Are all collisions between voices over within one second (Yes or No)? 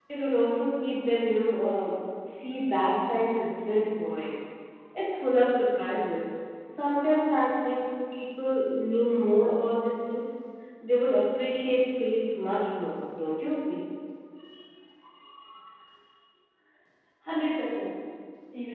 Yes